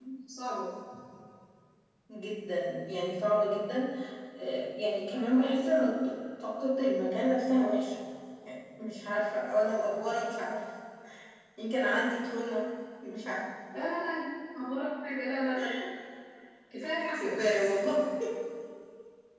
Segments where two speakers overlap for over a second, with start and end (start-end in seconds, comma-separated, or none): none